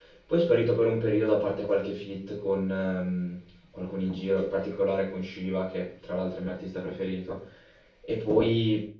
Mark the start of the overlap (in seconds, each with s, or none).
none